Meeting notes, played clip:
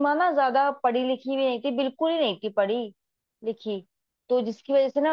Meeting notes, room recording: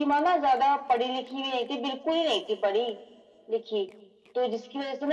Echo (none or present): present